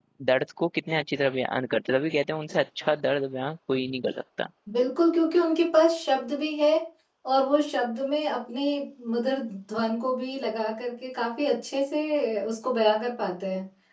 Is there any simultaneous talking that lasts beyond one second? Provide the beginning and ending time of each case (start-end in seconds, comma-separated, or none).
none